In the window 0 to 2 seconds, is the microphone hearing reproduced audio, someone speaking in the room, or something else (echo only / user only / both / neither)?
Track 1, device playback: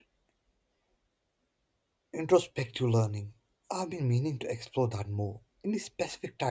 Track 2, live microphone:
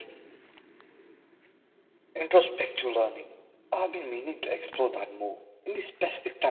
neither